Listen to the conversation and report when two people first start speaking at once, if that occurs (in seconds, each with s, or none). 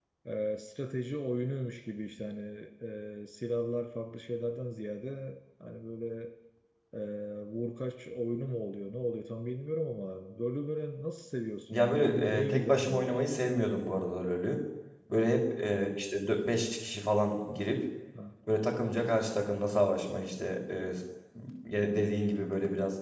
11.7 s